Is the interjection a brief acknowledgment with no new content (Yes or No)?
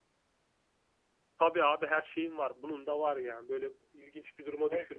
No